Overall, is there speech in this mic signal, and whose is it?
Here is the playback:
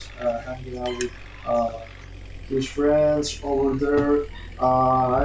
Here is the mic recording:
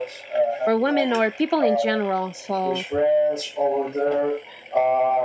both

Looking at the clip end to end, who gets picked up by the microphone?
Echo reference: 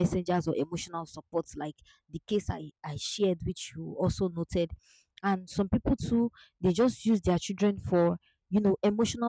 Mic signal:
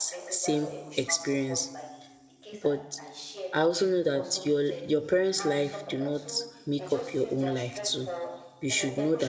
both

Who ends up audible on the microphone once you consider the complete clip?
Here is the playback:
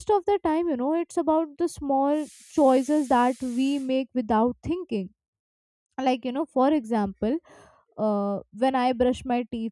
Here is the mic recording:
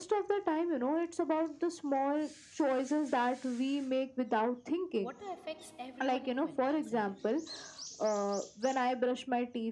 both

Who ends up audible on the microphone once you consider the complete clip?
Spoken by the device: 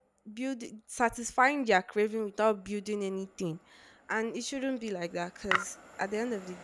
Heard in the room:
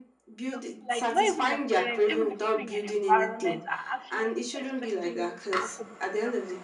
both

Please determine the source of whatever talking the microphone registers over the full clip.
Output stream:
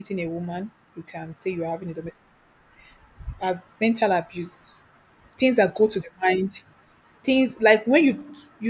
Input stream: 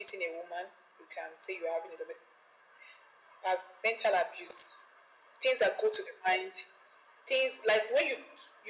echo only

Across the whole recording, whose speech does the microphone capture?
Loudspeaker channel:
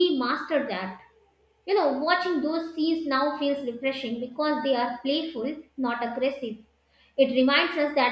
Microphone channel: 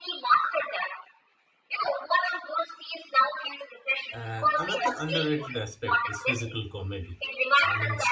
both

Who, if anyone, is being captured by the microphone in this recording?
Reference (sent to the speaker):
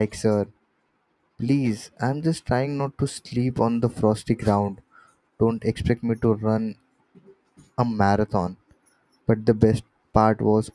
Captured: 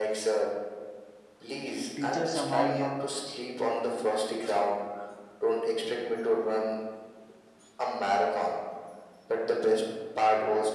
both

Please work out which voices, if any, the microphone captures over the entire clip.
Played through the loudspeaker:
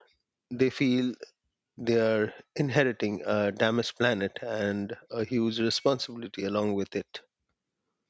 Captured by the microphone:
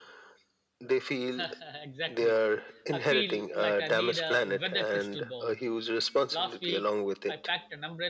both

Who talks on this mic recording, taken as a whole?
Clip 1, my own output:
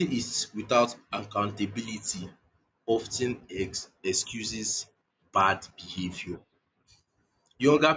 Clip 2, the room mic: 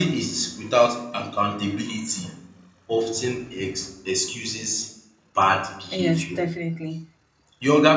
both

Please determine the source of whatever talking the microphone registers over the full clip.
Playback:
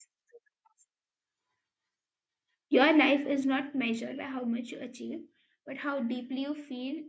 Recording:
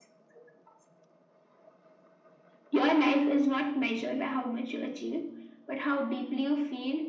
echo only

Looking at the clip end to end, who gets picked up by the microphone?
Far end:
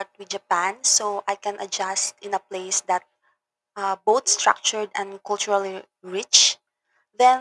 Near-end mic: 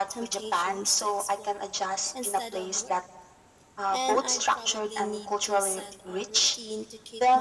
both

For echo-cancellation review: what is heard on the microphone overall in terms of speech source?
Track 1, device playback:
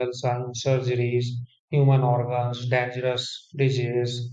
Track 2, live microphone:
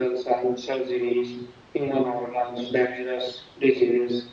echo only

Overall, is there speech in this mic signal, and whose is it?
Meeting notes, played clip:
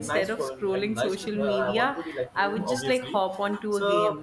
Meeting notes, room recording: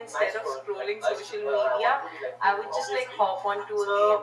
echo only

